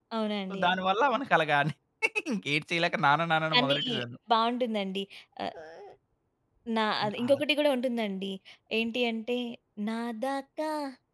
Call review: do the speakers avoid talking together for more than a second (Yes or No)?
Yes